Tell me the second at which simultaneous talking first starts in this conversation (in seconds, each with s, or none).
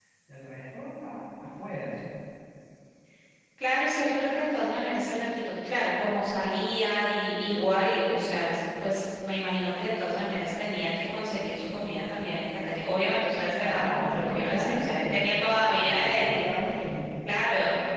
13.7 s